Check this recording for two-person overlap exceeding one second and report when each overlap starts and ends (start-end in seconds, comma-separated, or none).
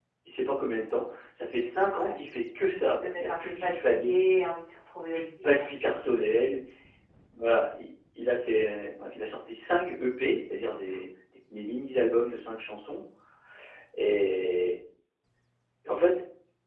2.6-4.2